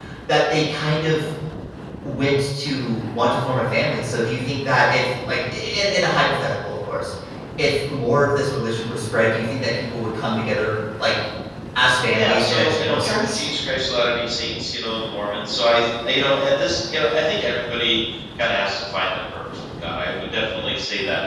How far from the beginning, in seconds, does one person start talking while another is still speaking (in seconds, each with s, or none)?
12.1 s